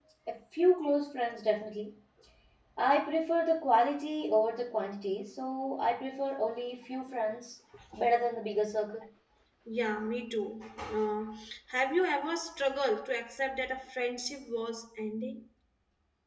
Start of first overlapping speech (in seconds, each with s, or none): none